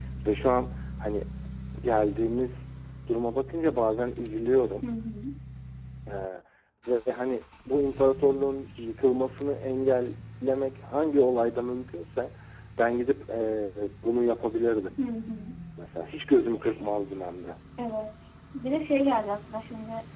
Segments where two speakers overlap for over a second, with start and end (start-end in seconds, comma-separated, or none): none